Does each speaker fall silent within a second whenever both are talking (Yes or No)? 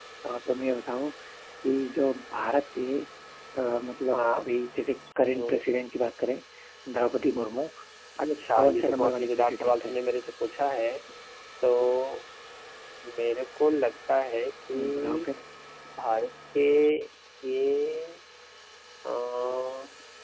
No